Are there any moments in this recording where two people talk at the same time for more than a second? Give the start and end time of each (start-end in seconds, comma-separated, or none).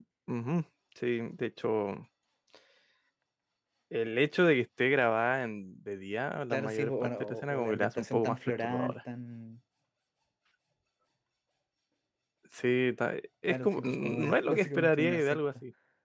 6.5-8.9, 13.5-15.4